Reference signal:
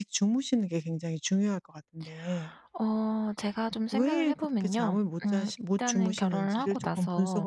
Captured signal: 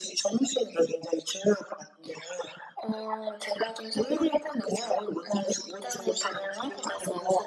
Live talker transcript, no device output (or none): none